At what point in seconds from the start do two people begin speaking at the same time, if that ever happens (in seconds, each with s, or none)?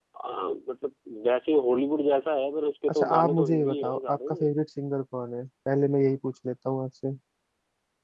2.9 s